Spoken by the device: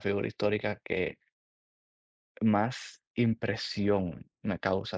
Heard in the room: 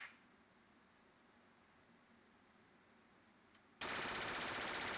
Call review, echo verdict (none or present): none